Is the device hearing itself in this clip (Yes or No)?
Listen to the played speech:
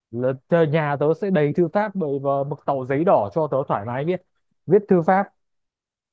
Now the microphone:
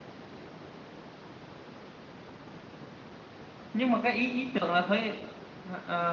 No